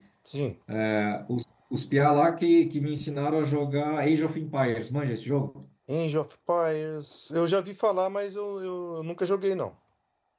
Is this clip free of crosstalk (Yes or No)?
Yes